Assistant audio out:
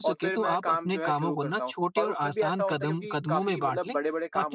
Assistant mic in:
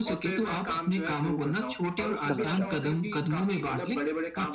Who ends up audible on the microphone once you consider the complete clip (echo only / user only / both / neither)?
both